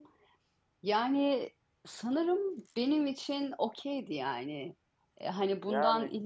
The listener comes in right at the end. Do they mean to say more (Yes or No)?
No